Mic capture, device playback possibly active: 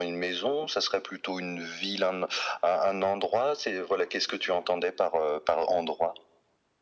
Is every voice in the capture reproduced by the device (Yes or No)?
Yes